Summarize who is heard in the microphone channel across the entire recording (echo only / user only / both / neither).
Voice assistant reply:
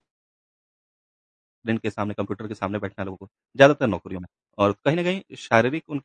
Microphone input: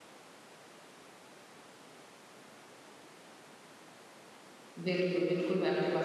user only